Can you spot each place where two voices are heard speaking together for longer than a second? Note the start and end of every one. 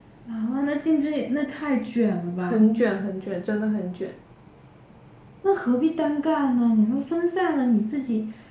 none

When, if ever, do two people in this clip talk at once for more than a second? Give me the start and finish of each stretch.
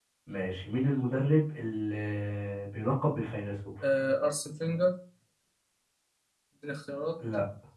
none

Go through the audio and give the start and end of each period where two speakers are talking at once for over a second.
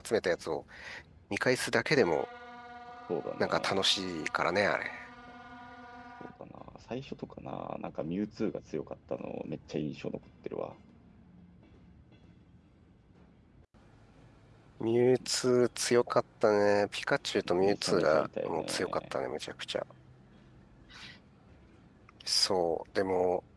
17.6-19.0

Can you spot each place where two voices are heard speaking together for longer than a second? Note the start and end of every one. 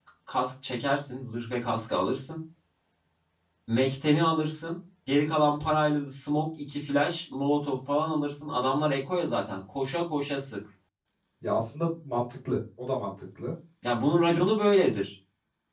none

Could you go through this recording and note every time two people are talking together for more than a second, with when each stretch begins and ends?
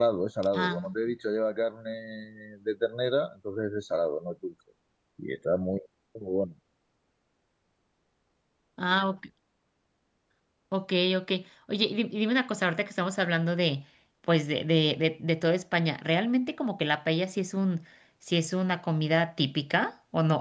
none

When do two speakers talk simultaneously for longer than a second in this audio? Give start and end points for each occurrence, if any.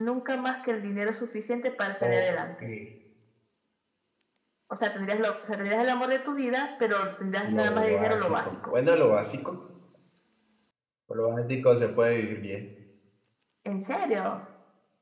7.4-8.7

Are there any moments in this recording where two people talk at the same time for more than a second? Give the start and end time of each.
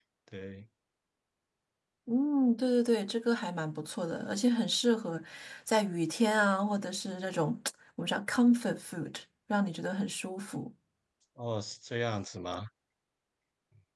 none

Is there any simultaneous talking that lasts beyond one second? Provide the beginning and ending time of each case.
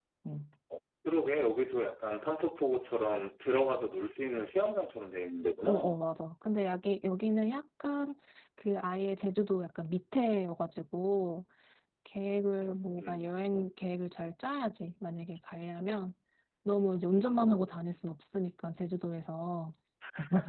none

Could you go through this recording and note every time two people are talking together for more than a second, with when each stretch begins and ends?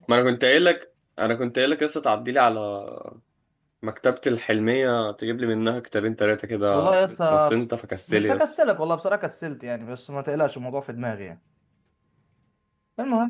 none

